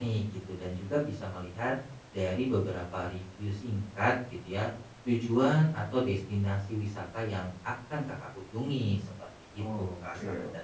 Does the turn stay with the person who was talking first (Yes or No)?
No